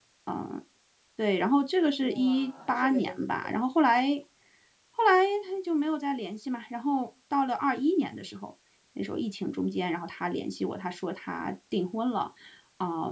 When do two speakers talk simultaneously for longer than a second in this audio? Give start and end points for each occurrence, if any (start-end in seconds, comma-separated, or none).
2.0-3.2